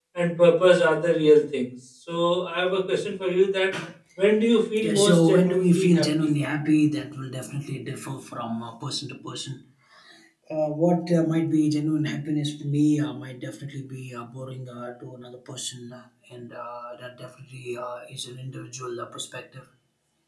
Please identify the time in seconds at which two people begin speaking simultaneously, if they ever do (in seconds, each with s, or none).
4.8 s